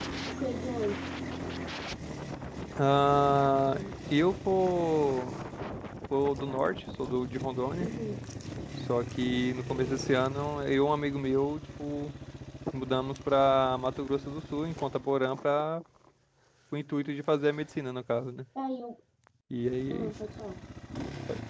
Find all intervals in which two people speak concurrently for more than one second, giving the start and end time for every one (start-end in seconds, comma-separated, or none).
none